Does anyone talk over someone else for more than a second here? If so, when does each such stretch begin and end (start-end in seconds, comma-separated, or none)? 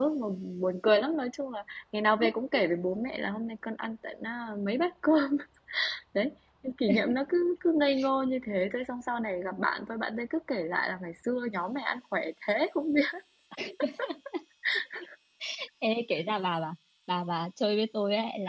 none